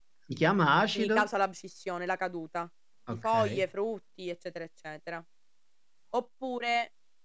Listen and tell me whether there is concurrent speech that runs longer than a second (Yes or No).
No